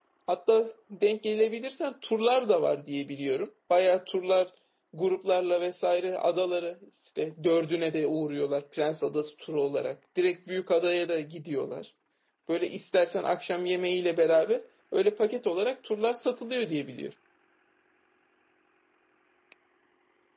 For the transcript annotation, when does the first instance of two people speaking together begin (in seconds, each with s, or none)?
none